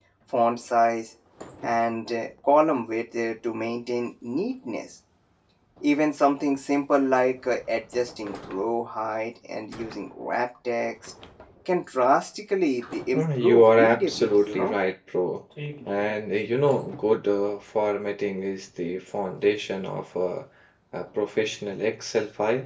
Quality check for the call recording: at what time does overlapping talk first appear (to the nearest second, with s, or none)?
13 s